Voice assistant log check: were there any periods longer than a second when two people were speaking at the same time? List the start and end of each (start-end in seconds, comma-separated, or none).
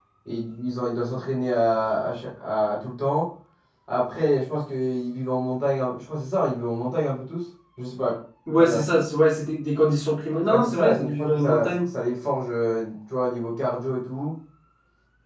10.5-11.8